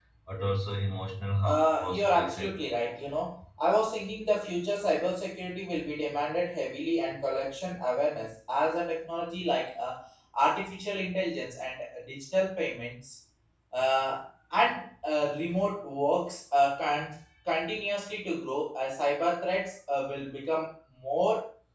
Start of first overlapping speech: 1.4 s

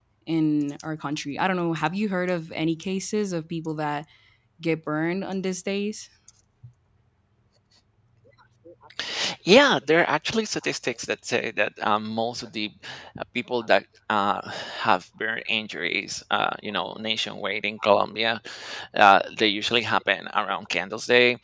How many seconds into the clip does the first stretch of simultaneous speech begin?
none

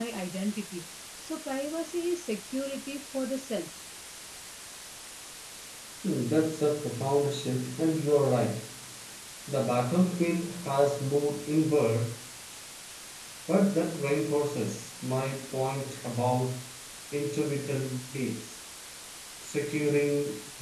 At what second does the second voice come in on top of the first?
none

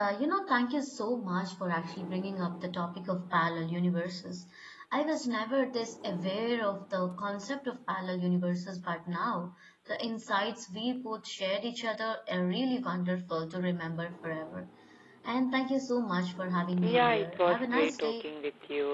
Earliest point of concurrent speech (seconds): 16.7 s

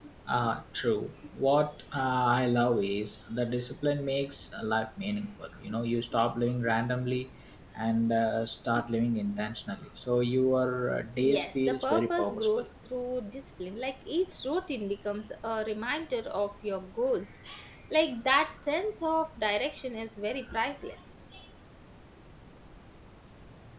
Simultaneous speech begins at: 11.2 s

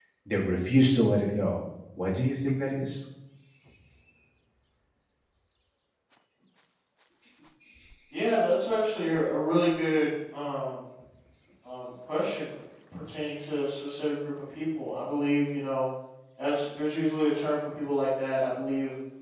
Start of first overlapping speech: none

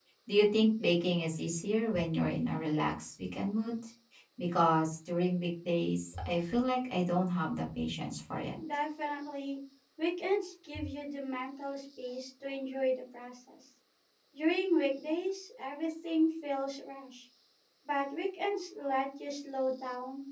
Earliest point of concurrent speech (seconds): none

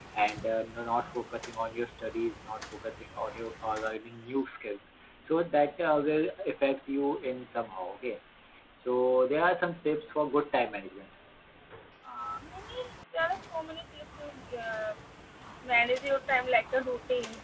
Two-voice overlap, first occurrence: none

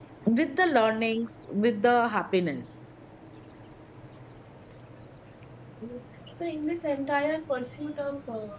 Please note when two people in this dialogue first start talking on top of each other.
none

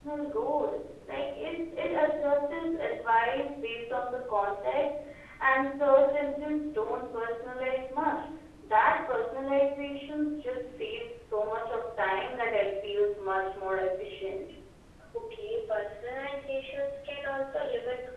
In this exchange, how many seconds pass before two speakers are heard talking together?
none

